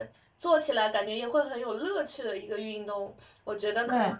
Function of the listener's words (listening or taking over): listening